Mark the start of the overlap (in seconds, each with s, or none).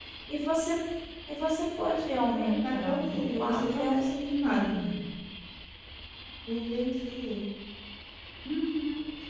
2.2 s